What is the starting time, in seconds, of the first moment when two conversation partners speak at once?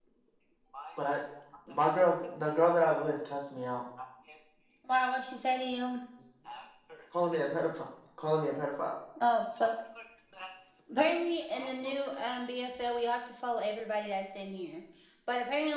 none

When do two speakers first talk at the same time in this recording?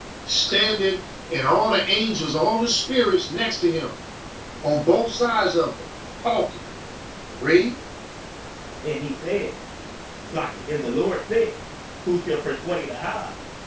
none

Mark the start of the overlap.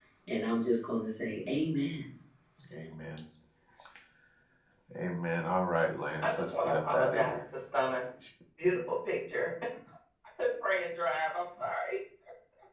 6 s

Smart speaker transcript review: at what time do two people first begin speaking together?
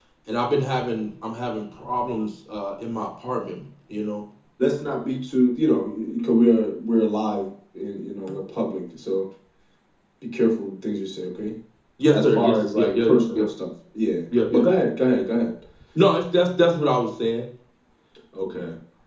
12 s

